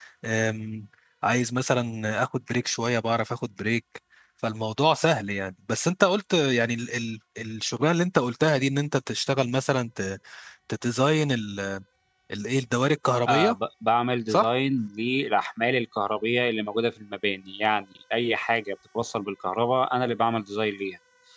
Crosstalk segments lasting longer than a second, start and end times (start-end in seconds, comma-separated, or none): none